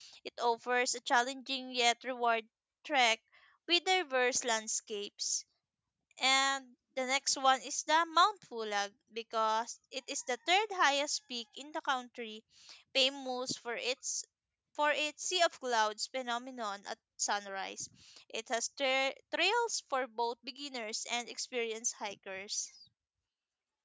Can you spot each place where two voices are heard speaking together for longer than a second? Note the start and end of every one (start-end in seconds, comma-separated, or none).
none